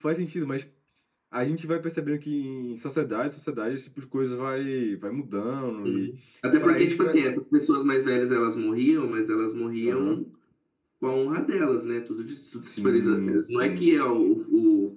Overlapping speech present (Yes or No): Yes